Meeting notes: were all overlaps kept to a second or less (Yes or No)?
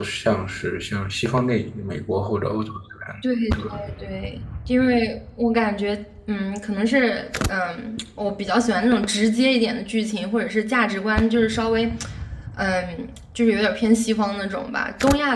Yes